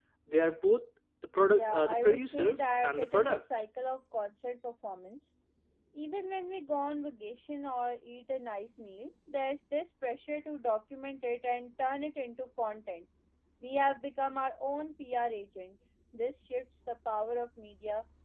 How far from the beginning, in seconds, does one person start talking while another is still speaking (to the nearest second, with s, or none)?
1 s